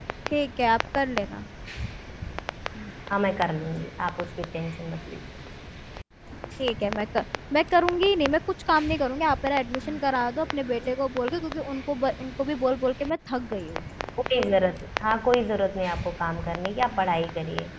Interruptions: none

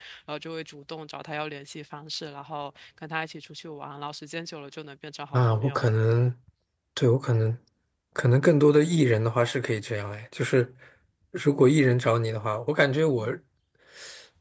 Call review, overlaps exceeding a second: none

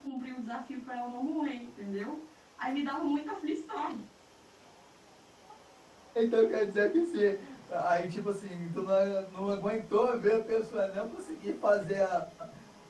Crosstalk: none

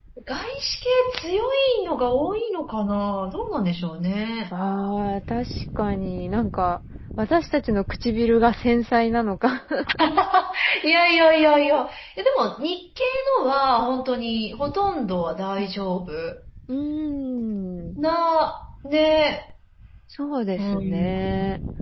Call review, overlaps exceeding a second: none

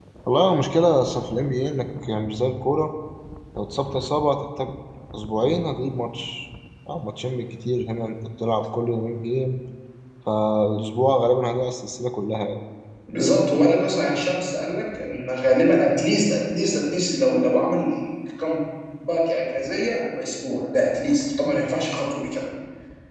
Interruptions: none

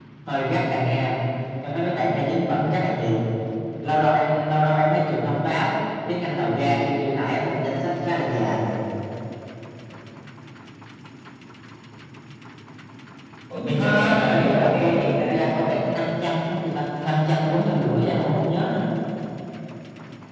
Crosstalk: present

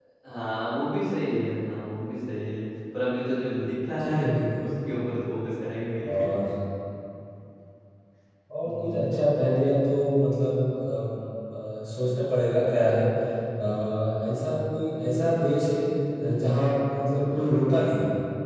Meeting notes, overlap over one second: none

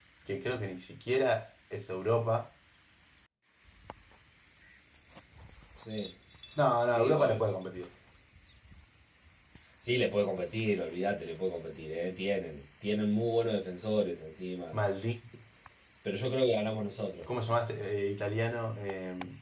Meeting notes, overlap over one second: none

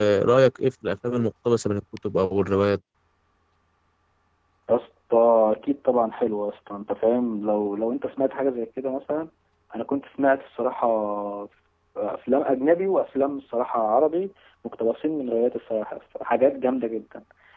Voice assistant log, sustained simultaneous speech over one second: none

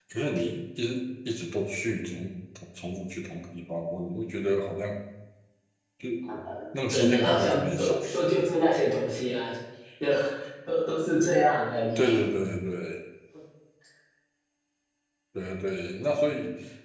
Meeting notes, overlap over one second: present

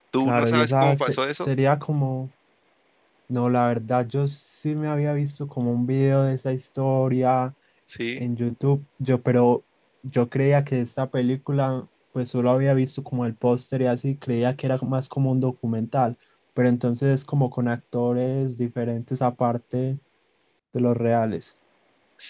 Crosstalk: present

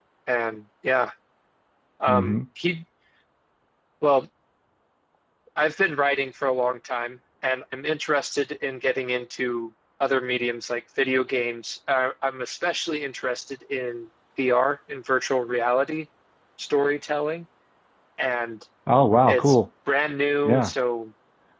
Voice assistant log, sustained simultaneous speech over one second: none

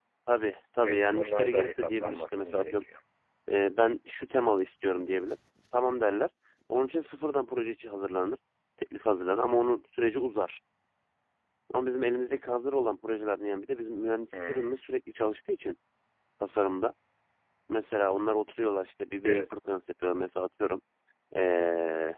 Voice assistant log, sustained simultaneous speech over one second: present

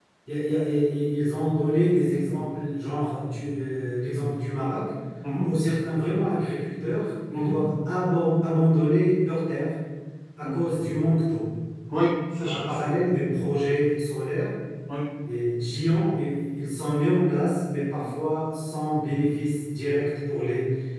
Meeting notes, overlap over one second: none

